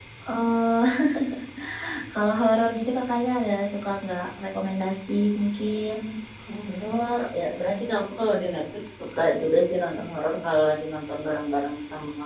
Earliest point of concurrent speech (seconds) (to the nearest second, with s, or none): none